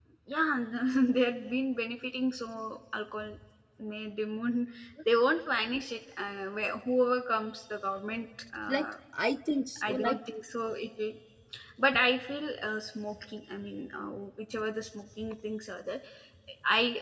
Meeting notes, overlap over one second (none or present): none